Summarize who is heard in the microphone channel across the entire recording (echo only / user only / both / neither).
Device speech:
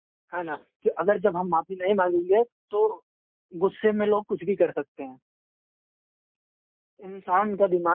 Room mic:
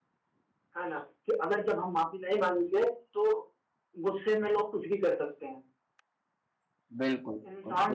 both